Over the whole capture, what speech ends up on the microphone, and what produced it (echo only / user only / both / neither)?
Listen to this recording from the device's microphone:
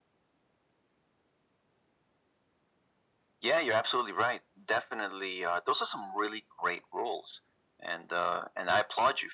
echo only